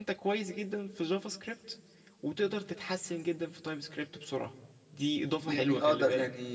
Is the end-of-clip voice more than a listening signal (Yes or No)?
Yes